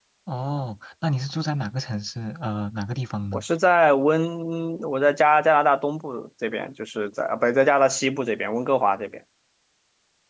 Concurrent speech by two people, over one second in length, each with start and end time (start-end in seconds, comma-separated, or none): none